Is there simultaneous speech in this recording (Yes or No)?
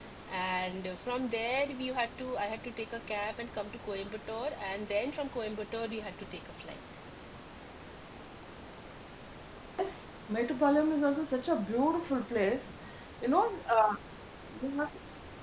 No